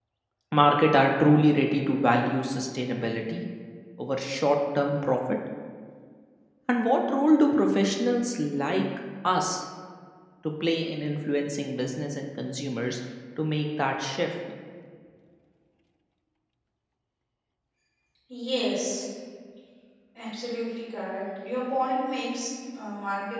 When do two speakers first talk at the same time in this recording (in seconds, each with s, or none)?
none